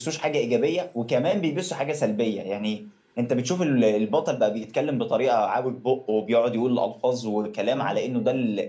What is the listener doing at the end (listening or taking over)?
listening